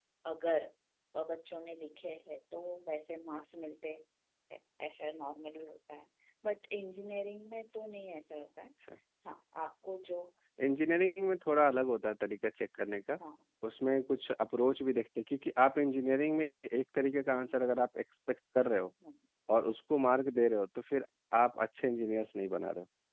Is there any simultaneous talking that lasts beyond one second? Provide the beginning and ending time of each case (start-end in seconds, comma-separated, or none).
none